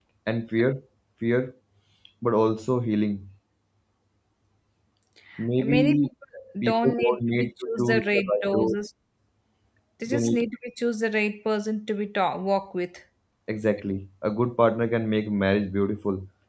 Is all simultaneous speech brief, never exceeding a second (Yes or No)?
No